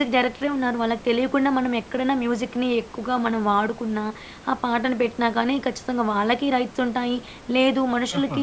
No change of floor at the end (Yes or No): Yes